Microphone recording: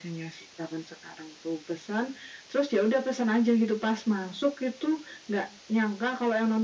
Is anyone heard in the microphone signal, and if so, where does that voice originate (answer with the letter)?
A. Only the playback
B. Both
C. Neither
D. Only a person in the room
A